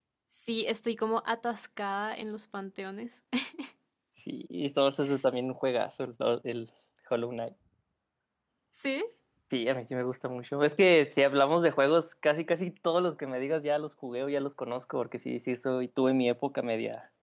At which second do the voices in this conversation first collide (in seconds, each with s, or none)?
none